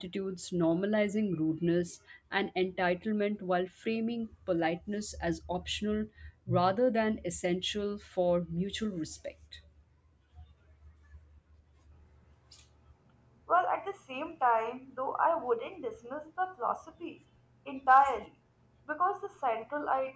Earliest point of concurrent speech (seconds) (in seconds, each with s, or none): none